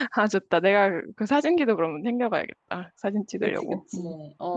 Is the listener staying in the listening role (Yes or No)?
No